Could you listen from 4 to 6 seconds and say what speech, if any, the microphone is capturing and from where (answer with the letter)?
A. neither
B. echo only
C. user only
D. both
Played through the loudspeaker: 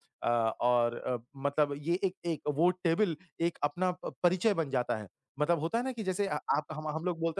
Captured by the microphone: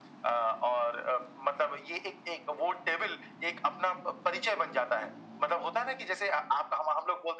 B